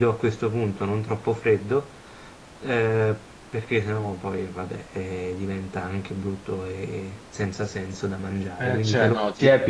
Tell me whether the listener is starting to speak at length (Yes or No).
Yes